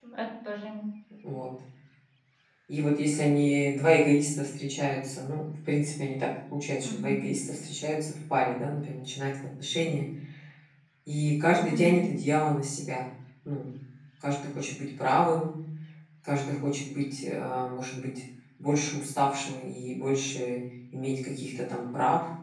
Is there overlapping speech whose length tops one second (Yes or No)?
No